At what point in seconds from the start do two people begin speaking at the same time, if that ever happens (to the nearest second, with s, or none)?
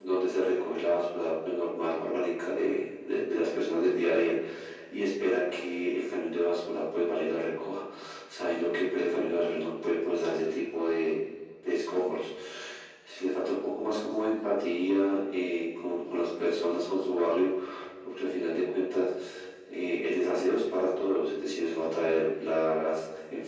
none